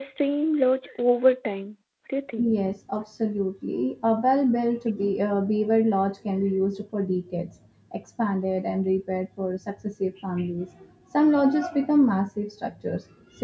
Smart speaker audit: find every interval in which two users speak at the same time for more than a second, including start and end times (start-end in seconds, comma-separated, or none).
none